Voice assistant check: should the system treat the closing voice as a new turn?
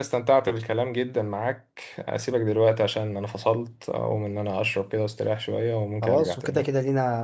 Yes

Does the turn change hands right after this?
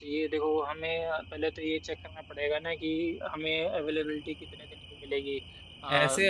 Yes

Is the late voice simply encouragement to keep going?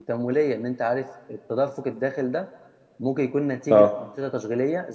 Yes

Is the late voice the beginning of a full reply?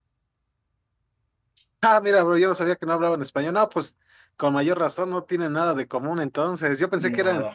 No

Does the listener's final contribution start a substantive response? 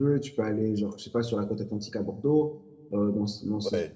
Yes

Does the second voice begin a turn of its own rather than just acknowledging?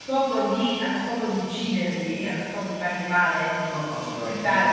Yes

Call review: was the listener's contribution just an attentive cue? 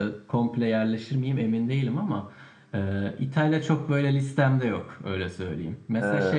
Yes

